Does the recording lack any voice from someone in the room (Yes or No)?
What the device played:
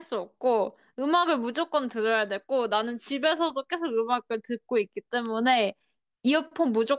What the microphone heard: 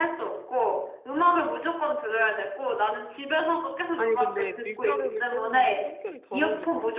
No